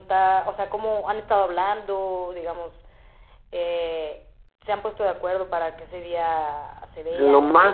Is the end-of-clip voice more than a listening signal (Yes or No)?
Yes